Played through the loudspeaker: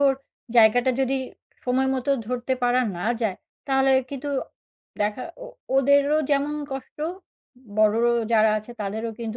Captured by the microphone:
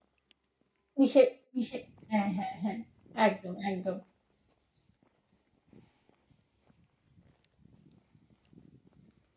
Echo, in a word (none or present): none